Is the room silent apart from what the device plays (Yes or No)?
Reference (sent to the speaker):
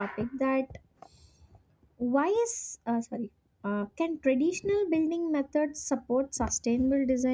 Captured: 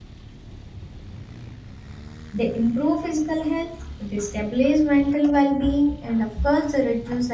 No